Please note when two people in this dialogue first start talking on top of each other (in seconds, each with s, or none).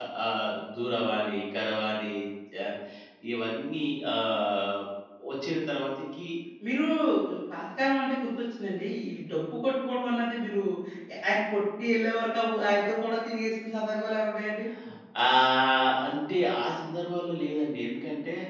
none